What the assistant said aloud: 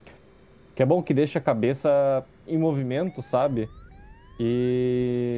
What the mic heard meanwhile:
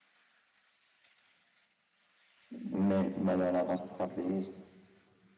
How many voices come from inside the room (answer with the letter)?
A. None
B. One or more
B